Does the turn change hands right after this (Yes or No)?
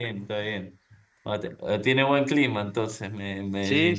Yes